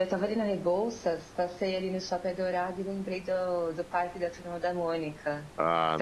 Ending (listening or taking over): taking over